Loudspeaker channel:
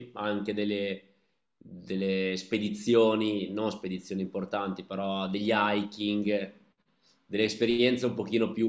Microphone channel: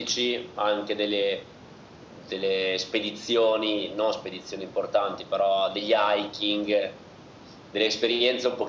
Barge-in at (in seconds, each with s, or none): none